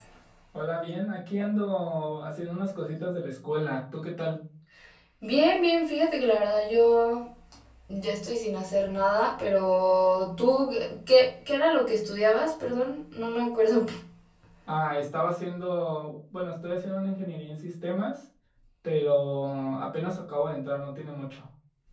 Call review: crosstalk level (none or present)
none